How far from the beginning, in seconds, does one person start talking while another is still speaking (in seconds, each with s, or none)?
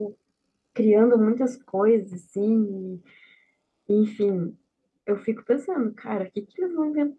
none